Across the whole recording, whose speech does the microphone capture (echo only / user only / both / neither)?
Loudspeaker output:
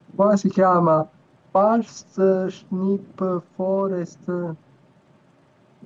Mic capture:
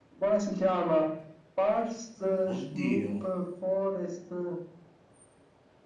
both